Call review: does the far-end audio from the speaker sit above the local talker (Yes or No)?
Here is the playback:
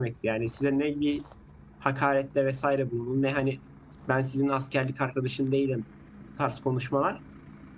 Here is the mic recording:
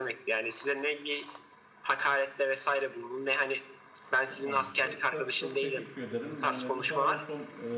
Yes